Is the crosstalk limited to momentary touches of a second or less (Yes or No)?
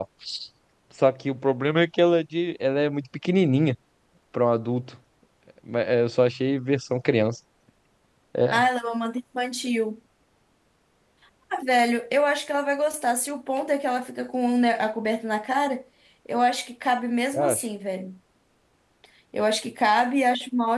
Yes